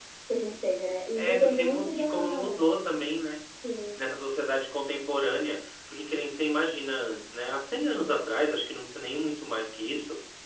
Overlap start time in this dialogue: 1 s

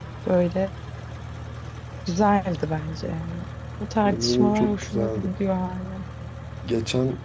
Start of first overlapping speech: 4 s

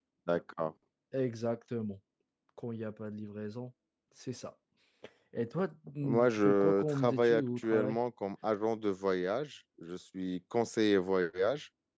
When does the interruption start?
6 s

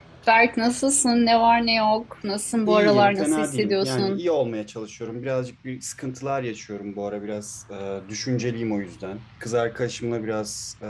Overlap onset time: 3 s

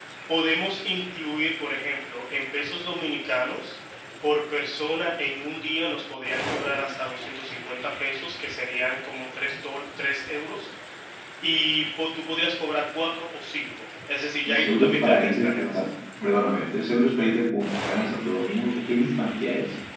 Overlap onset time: 14 s

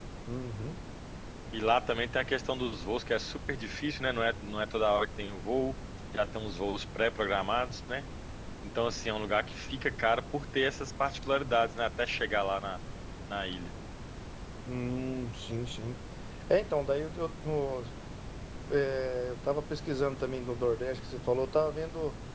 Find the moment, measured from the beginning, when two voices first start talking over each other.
none

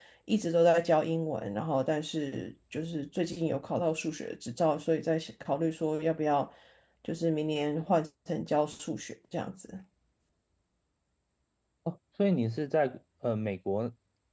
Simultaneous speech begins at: none

